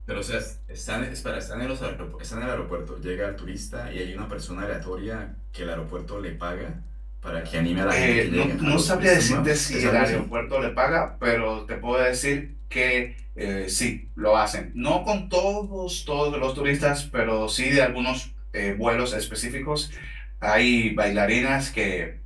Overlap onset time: 7.9 s

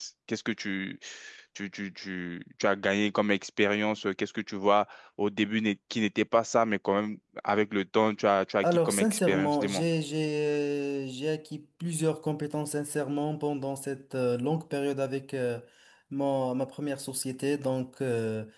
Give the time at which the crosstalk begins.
8.6 s

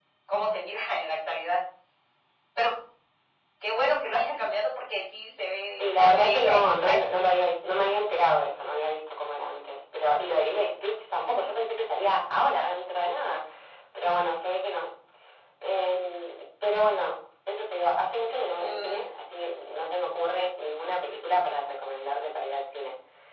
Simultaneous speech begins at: 5.7 s

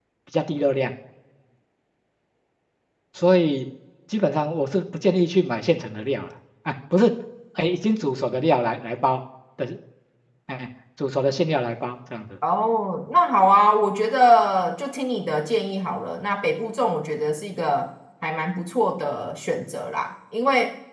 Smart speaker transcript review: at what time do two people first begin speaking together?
none

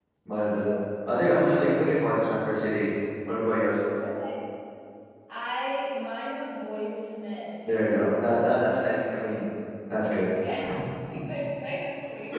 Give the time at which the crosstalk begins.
none

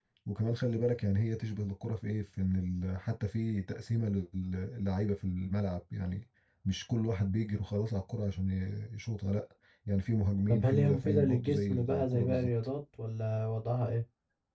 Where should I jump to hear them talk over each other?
10.5 s

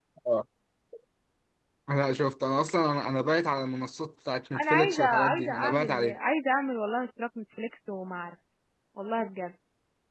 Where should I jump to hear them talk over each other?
4.5 s

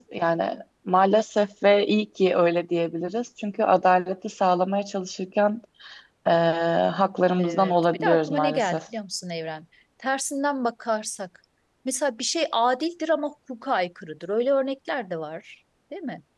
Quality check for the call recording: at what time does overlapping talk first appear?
7.4 s

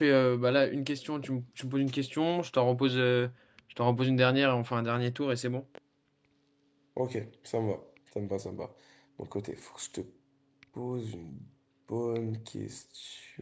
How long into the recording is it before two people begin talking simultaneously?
none

